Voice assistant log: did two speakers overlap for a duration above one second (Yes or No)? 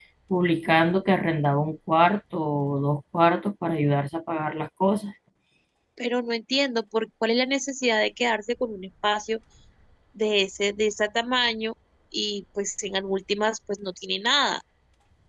No